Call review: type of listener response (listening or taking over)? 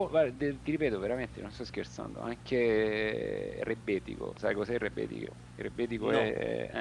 listening